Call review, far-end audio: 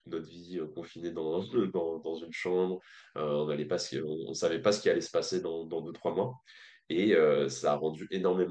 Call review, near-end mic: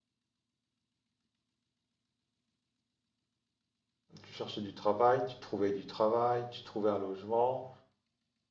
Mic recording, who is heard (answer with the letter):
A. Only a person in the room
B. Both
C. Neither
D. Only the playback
A